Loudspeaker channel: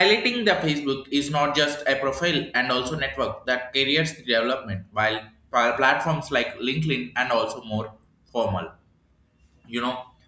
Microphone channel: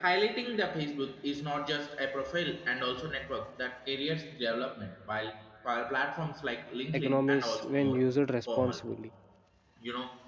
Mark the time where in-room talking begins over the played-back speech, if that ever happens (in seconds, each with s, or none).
6.9 s